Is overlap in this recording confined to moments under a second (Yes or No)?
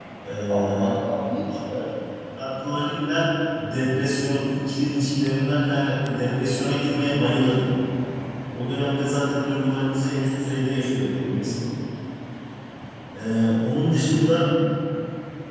Yes